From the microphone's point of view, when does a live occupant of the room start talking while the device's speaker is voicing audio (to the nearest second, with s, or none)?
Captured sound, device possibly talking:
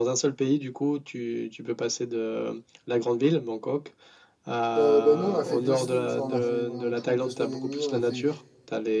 5 s